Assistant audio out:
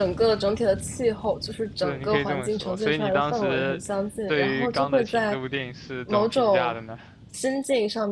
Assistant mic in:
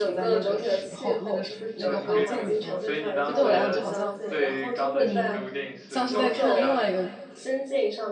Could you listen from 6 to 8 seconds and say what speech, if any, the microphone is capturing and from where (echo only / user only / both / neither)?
both